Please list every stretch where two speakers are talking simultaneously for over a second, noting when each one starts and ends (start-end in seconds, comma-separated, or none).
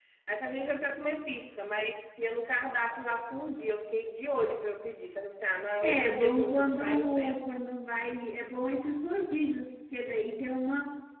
5.8-7.6